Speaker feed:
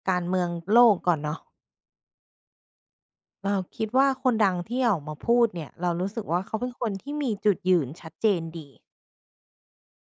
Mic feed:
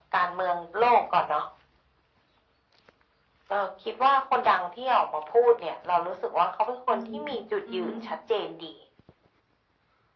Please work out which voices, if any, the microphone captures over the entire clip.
both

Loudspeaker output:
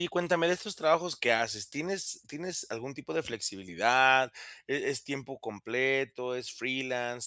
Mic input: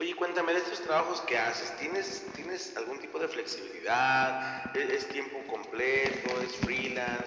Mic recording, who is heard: echo only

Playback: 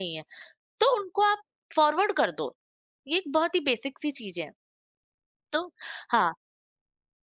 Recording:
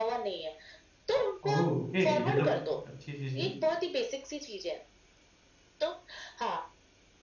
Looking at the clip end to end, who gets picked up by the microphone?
both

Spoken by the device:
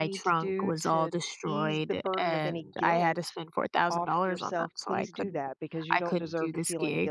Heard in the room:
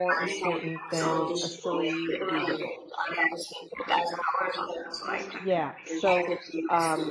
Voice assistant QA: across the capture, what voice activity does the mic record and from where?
both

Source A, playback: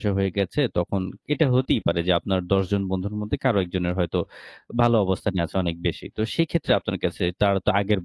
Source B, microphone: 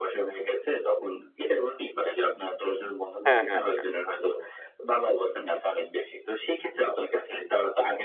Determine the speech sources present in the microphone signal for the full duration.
both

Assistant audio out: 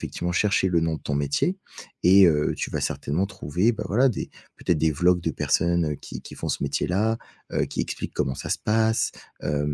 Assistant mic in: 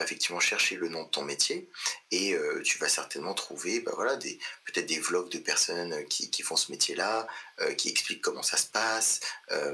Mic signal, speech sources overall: echo only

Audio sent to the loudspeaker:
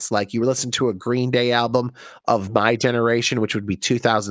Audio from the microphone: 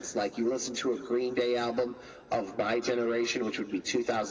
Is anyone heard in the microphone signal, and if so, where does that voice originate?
echo only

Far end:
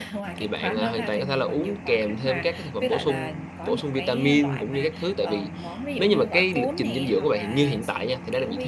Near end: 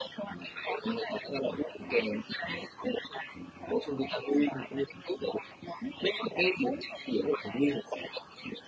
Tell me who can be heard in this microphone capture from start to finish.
echo only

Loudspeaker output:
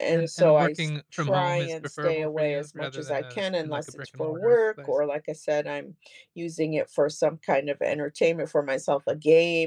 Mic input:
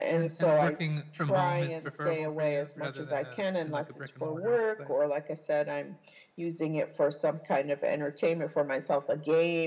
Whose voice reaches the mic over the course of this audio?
echo only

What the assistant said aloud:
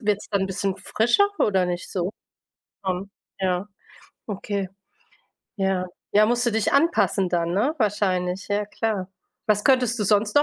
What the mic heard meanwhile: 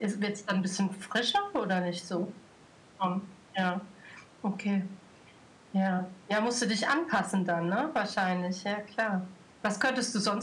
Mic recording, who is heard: echo only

